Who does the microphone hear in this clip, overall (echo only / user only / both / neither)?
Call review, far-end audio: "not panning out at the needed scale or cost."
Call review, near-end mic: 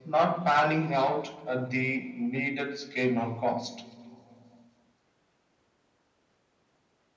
echo only